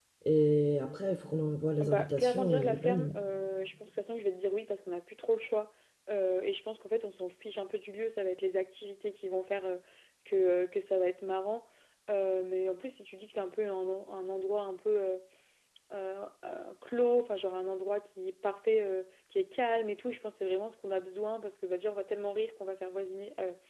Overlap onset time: 1.8 s

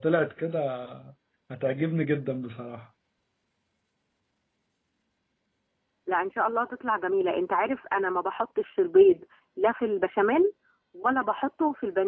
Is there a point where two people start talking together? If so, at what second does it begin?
none

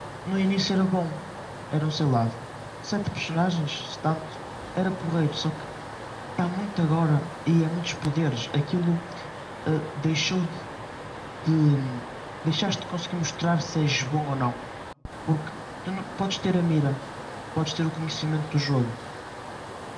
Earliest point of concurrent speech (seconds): none

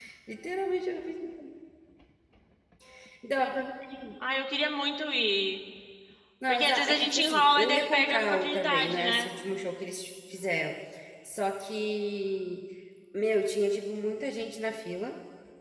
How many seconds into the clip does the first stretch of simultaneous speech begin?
6.5 s

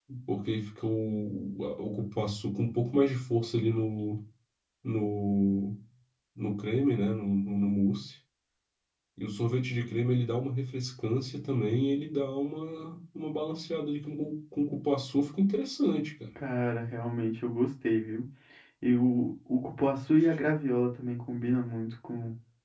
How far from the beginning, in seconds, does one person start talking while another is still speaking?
none

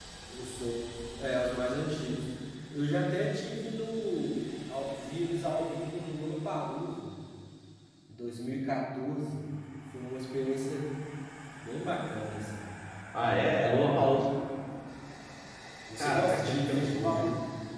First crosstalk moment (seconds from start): 16.0 s

